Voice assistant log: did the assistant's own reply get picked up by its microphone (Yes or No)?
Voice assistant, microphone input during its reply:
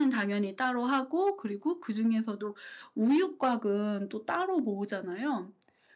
Yes